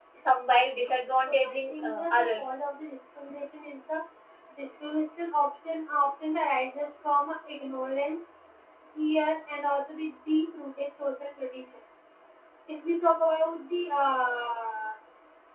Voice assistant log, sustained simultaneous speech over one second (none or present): present